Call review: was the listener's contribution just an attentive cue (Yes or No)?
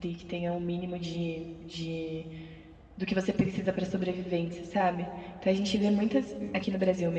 Yes